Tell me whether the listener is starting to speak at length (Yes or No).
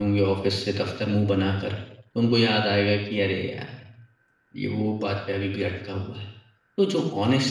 No